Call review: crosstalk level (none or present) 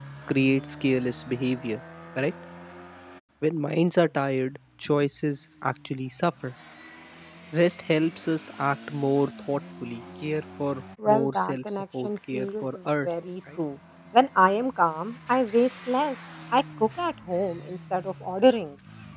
present